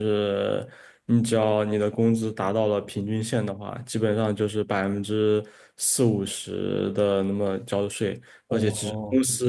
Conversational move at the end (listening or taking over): listening